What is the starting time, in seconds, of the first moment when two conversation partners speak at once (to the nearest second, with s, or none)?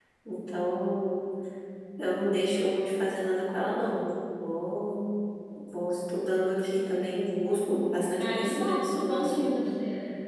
8 s